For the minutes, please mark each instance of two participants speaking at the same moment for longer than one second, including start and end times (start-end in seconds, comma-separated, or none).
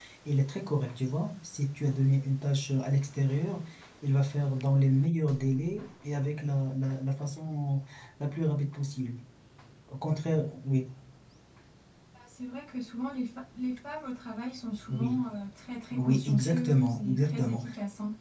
15.9-17.6